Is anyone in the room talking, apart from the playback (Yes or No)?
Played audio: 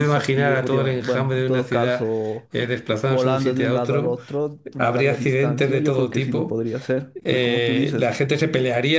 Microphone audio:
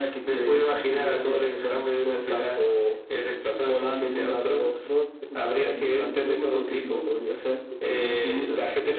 No